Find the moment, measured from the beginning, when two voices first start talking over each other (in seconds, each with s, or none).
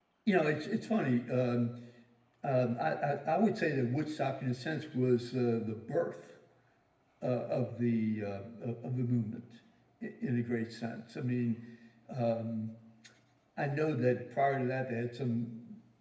none